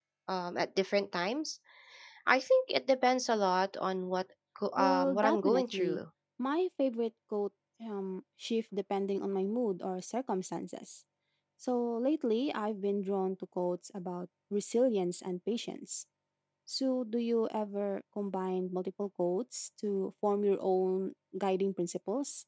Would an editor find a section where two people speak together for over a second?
Yes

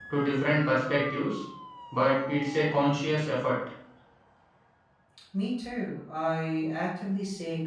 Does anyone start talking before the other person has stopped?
No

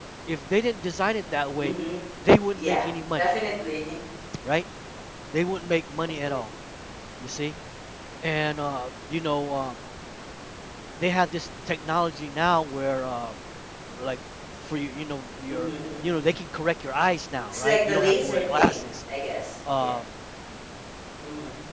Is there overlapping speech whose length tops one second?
Yes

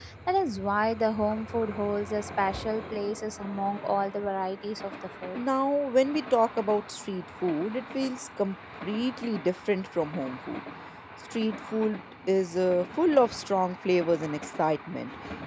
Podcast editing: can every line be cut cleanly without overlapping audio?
Yes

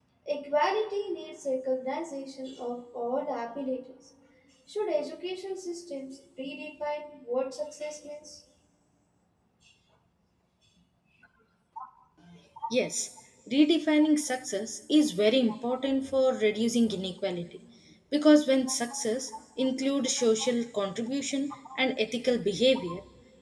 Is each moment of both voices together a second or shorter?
Yes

